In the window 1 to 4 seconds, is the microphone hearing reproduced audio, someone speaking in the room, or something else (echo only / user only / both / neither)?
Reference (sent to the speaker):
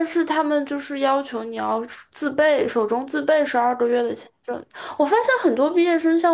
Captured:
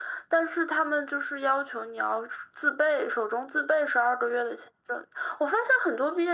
echo only